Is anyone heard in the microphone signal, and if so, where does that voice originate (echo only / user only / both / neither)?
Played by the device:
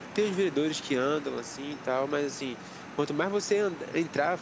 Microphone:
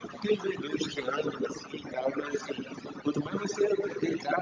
echo only